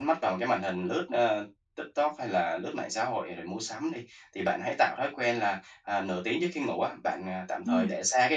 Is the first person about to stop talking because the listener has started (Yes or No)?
No